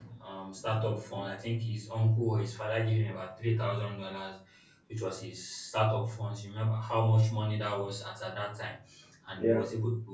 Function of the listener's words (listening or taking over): listening